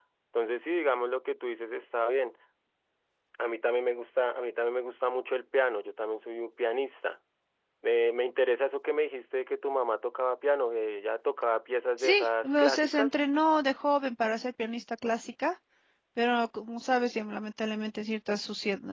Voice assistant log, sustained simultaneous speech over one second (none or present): present